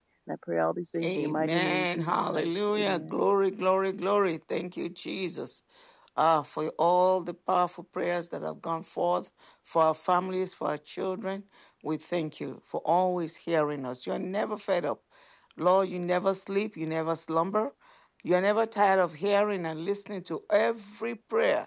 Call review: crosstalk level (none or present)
present